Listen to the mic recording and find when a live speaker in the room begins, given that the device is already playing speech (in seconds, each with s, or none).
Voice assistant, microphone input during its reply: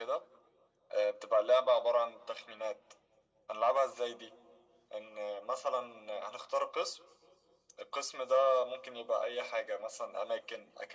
none